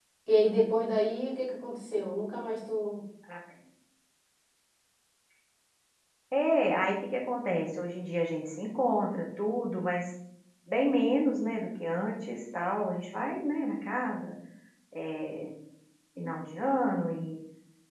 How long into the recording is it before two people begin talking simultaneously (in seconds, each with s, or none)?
none